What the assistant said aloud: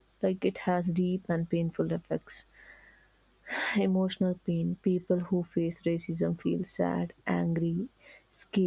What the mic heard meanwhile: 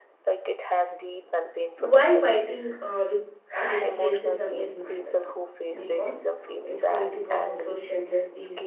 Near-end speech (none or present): present